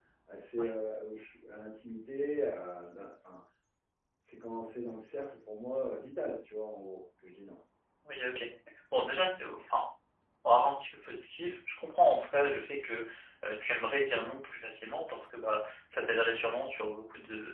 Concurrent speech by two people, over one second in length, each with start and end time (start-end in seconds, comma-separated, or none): none